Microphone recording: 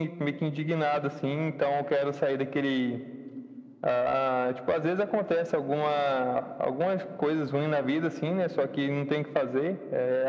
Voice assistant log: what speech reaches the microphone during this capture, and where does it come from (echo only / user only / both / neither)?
echo only